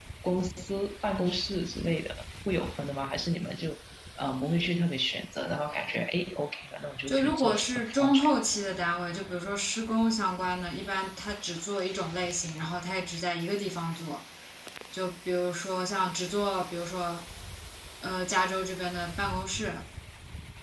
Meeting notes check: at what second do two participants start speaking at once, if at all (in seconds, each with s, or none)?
7.1 s